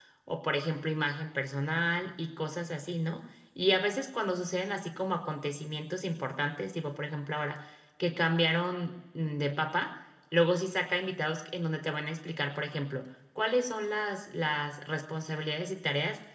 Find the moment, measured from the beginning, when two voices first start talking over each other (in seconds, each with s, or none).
none